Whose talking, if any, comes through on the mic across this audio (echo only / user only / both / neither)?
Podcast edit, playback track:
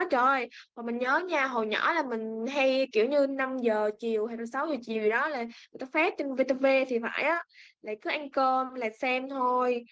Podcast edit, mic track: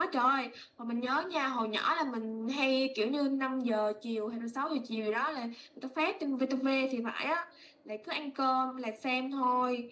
echo only